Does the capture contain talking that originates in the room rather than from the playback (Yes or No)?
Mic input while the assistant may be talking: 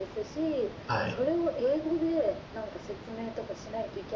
Yes